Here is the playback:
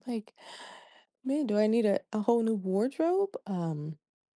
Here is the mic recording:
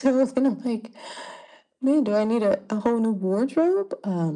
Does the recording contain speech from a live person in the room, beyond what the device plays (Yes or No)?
No